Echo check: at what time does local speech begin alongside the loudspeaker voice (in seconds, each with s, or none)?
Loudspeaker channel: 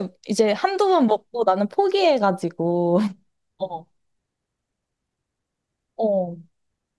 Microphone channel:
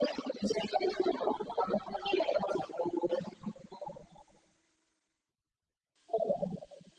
none